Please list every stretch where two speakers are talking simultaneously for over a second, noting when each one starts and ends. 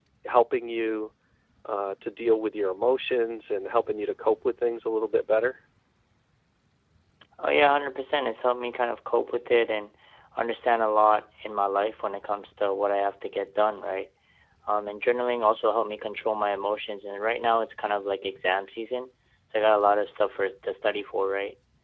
none

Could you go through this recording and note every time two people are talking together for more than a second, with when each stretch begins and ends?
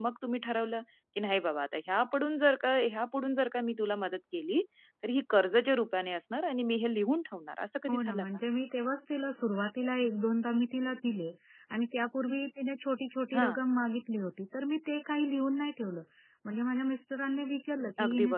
none

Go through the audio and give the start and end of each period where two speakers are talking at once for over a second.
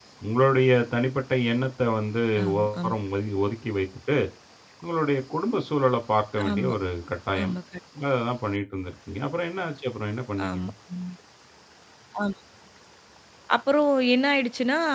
none

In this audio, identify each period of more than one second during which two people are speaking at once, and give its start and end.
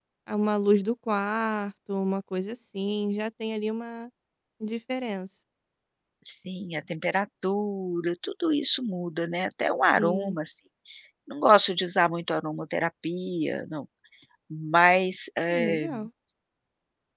none

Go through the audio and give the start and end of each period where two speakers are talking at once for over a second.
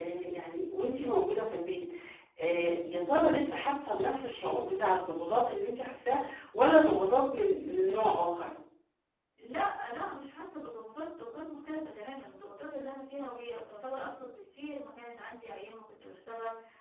none

